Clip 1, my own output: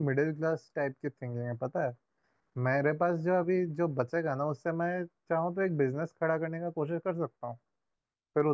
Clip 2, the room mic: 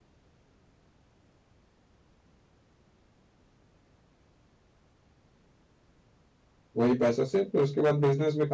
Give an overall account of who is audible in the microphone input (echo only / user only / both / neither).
user only